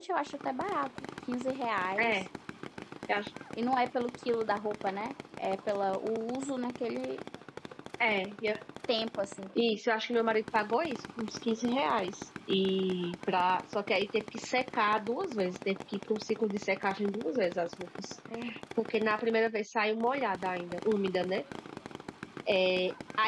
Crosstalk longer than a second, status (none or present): none